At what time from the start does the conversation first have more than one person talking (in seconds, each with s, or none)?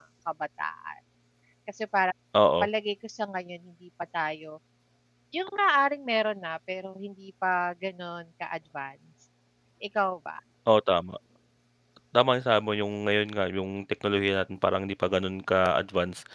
none